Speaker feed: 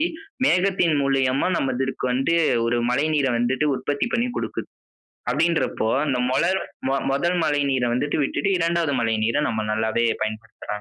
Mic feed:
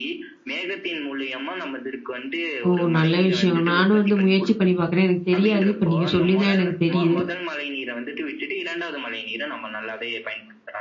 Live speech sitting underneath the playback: No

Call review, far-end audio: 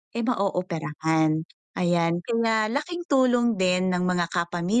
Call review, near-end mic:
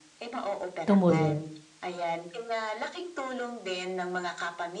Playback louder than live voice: No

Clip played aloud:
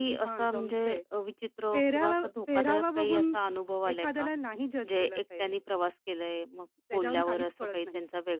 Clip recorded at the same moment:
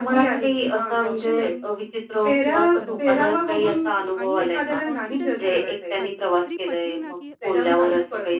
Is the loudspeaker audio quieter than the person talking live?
No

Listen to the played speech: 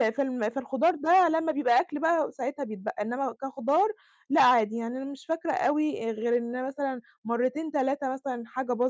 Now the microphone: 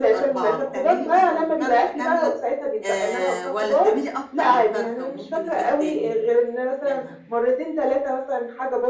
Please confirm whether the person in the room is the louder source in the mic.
No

